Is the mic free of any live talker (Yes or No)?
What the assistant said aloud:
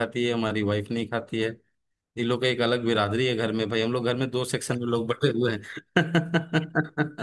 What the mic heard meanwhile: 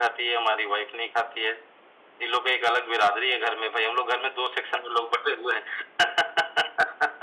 Yes